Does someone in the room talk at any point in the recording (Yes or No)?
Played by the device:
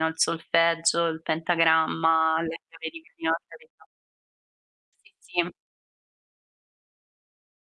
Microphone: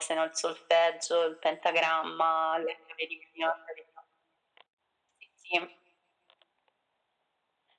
No